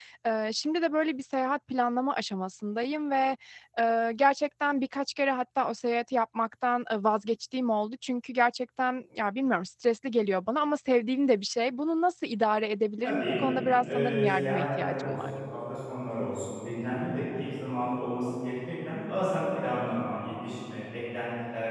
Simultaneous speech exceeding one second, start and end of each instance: 13.9-15.3

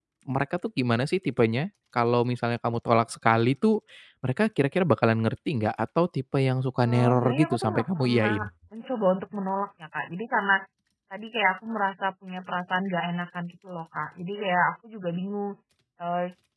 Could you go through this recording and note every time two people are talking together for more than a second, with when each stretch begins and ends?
6.8-8.4

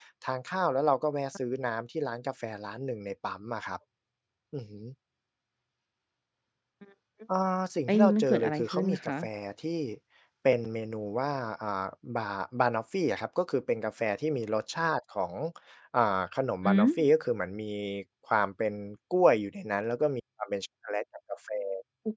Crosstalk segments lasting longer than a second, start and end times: 7.9-9.1

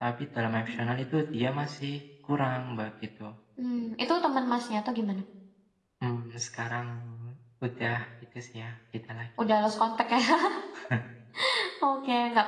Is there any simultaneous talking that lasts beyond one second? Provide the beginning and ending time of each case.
none

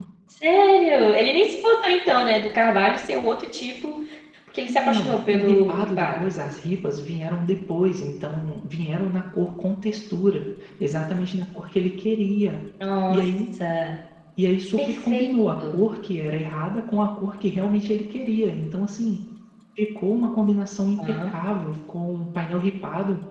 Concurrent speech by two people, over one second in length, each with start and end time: 4.7-6.3

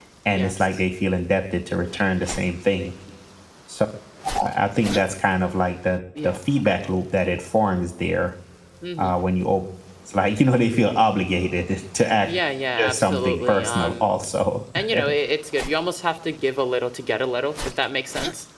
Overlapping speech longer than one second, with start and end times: 12.8-14.2

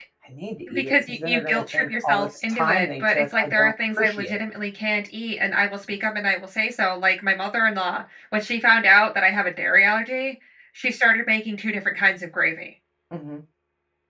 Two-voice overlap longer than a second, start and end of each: 0.7-4.4

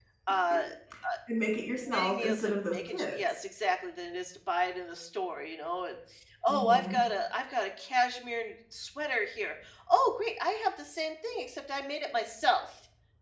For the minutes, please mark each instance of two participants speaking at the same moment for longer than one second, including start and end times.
1.9-3.2

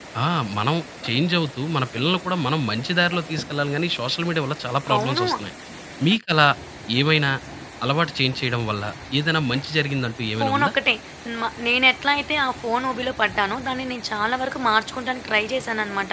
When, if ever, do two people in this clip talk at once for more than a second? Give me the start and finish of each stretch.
none

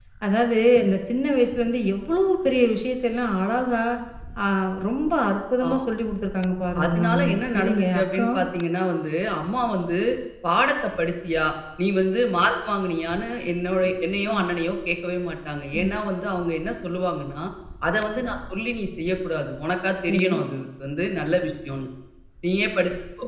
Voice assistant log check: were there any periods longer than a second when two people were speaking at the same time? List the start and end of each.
6.8-8.4

